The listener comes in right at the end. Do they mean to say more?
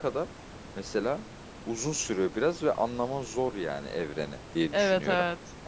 Yes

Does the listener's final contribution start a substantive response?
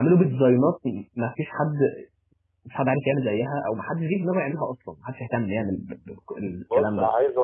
Yes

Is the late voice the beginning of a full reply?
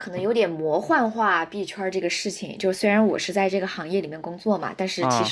No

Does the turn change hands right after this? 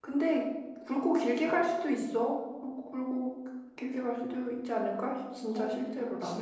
Yes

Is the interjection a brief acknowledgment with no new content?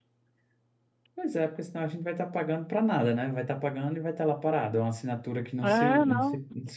No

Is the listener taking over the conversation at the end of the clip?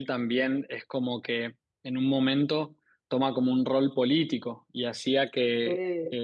No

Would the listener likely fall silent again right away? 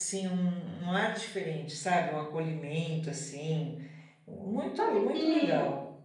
No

